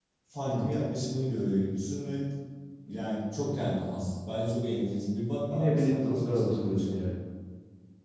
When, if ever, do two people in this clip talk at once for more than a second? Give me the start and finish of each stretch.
5.5-7.0

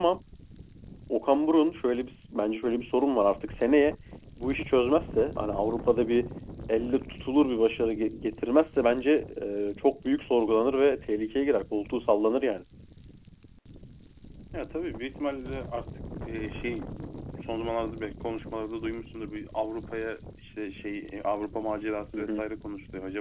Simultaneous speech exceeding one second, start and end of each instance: none

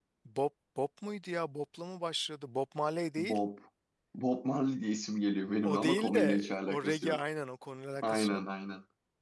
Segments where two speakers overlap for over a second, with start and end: 5.6-7.2

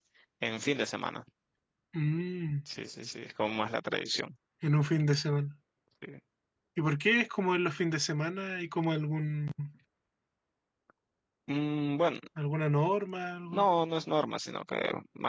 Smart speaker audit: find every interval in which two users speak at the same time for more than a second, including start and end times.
none

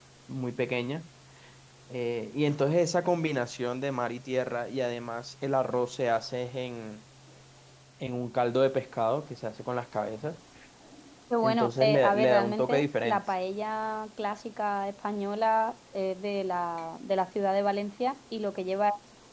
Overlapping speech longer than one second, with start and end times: 11.4-13.2

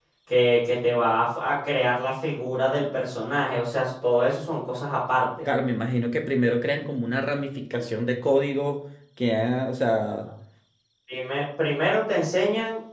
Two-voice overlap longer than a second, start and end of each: none

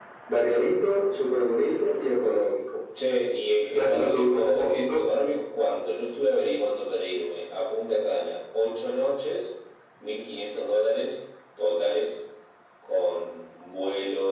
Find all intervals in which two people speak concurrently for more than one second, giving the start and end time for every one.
3.7-5.0

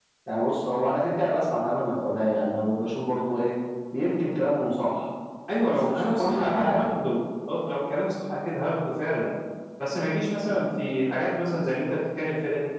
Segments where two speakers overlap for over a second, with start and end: 5.7-6.9

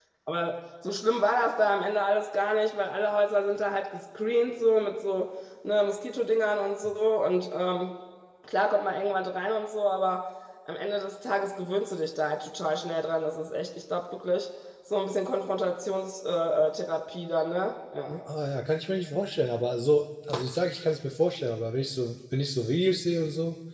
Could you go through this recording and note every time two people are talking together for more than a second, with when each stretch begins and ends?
none

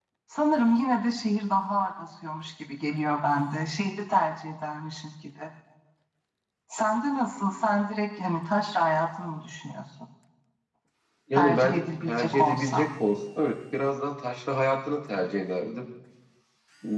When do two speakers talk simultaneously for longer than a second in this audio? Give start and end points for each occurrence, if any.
11.3-12.9

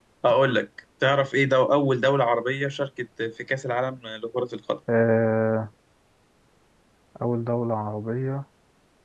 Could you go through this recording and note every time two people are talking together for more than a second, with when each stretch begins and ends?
none

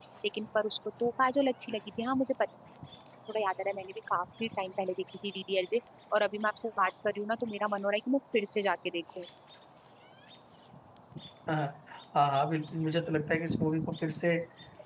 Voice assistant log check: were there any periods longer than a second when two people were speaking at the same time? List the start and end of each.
none

